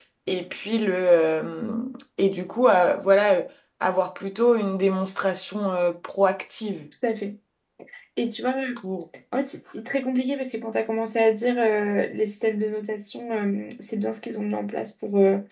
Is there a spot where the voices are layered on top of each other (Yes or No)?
No